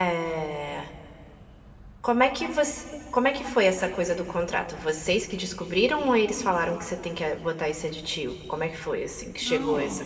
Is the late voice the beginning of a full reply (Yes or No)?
Yes